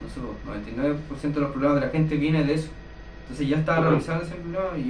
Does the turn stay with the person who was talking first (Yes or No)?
Yes